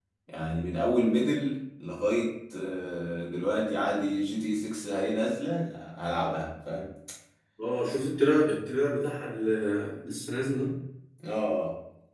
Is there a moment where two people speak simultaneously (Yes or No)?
No